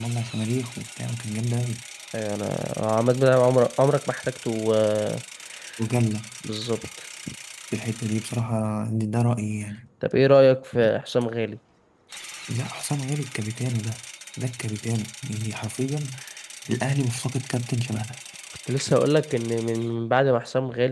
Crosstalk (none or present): none